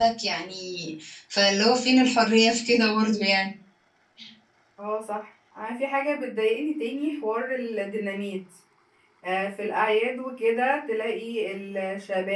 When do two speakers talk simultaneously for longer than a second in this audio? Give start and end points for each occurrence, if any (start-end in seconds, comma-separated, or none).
none